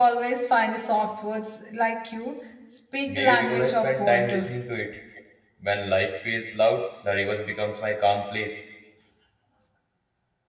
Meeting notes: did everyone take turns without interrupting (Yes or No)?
No